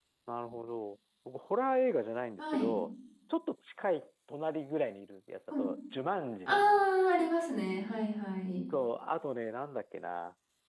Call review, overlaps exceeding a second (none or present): none